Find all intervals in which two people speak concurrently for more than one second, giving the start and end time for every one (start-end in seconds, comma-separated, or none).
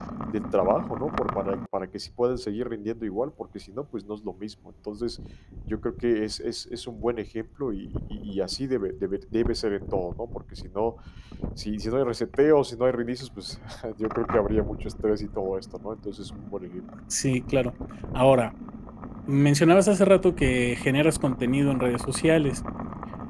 none